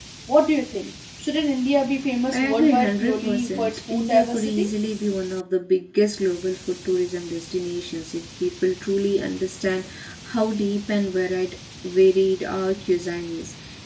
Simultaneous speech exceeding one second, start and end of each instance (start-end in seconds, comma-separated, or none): 2.3-4.6